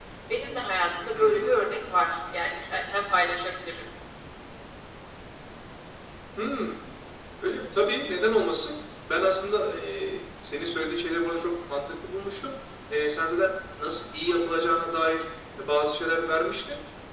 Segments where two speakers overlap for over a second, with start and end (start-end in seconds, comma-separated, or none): none